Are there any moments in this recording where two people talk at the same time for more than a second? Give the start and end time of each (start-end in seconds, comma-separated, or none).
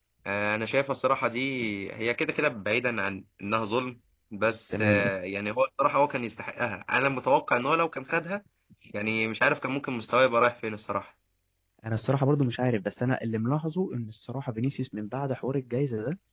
none